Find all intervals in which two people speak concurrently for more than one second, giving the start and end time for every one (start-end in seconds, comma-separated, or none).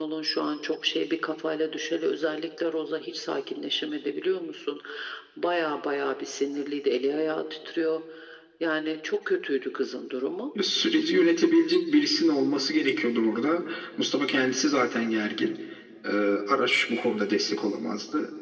none